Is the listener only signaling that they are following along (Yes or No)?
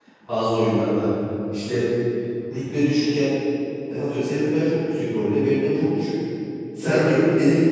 Yes